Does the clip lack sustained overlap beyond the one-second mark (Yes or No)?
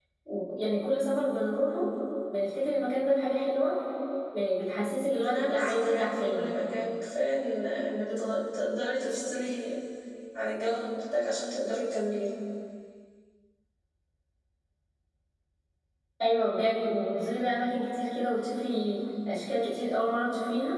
No